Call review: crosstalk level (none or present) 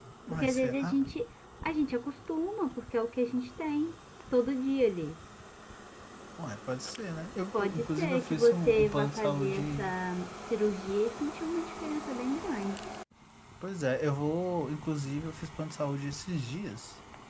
present